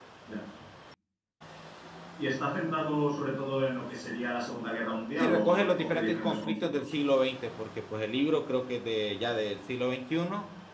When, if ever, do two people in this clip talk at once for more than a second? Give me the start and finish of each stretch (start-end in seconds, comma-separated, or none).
5.2-6.9